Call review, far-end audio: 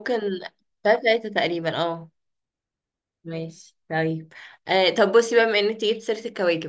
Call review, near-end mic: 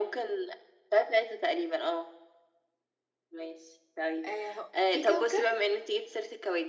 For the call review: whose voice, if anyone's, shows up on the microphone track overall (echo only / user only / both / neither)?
both